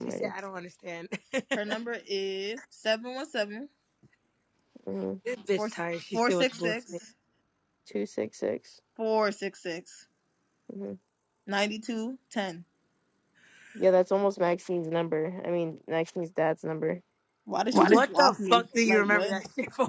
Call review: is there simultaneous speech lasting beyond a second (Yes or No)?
Yes